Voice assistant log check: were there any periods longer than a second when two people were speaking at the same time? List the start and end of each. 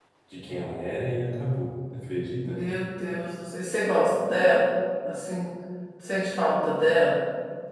none

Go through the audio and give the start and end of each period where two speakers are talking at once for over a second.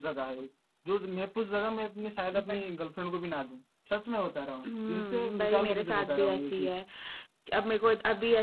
4.9-6.8

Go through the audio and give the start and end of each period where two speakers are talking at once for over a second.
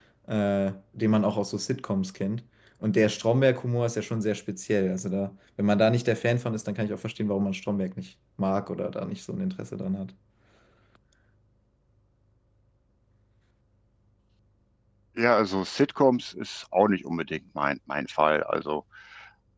none

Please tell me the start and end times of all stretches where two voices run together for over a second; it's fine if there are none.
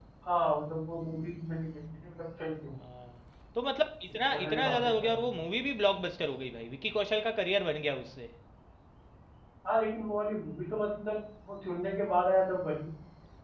4.1-5.4

